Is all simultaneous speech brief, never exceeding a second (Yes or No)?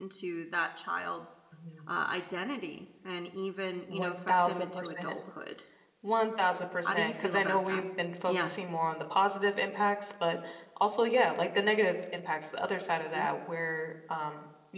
No